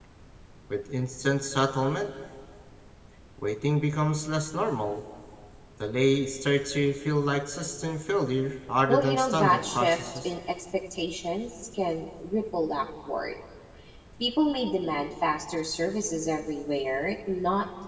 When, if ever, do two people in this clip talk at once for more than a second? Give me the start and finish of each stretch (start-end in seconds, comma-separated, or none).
8.9-10.3